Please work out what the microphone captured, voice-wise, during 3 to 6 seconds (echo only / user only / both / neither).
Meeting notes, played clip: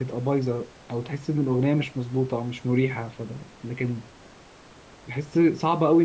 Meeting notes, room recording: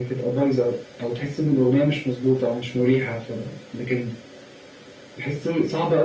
echo only